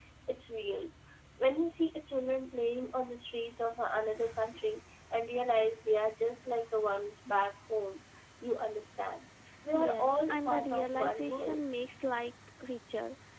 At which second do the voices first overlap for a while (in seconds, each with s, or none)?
9.7 s